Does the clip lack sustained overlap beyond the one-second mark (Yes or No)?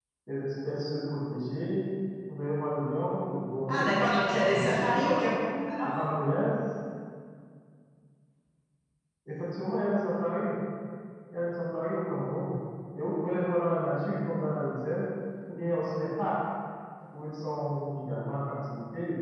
No